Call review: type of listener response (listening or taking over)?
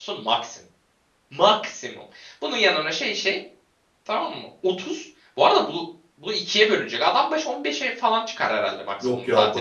taking over